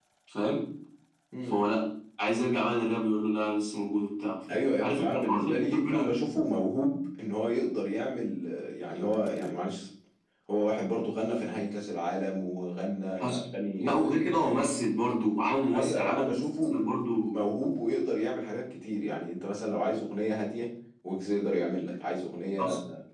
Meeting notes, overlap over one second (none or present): present